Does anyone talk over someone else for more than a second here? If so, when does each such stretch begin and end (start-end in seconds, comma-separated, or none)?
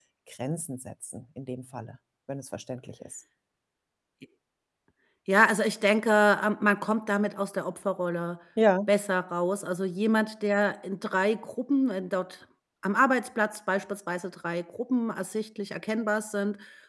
none